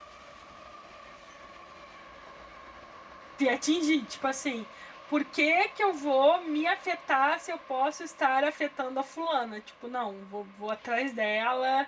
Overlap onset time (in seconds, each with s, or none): none